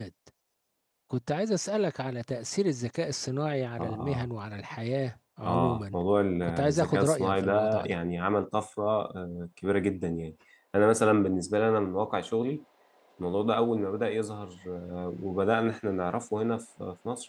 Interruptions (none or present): present